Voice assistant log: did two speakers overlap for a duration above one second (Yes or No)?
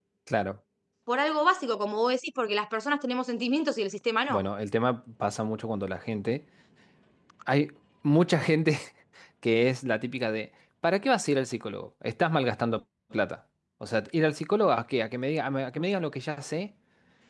No